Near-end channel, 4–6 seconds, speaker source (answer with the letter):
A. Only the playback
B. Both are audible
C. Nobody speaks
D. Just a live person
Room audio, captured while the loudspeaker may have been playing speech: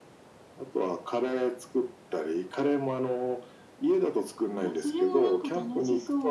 B